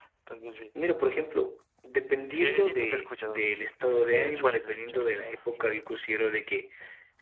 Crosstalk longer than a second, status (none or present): present